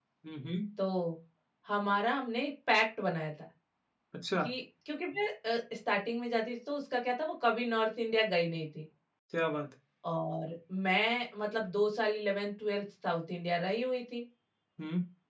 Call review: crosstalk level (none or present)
none